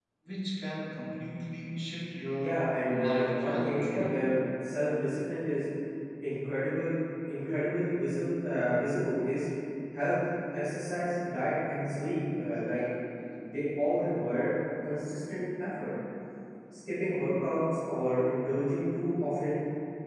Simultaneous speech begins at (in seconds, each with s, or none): 2.4 s